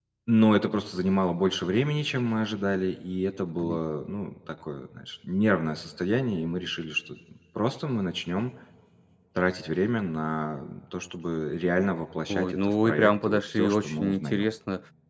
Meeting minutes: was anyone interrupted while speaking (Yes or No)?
Yes